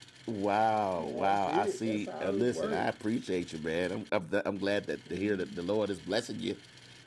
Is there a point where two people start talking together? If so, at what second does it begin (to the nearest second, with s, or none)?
1 s